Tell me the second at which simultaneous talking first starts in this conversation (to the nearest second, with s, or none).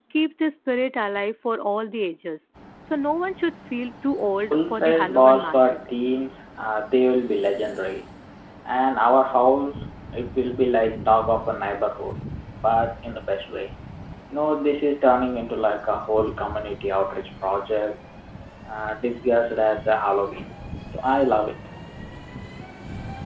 5 s